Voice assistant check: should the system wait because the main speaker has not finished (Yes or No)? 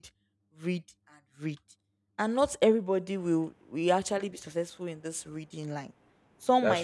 Yes